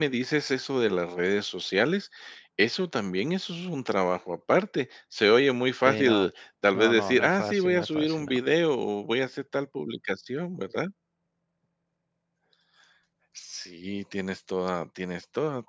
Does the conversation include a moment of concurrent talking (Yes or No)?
Yes